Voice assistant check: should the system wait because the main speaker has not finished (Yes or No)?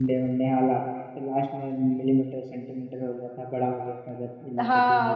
No